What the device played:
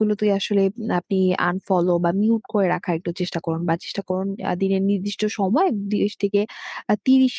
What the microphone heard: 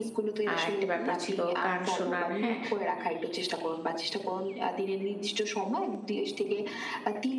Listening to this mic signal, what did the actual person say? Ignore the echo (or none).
আ একটা ব্যাপার ছিল, গান শোনার, হ্যাঁ?